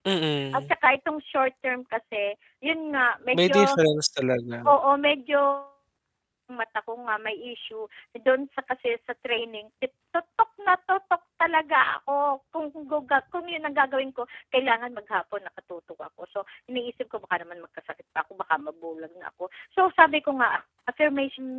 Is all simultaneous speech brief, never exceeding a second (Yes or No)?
Yes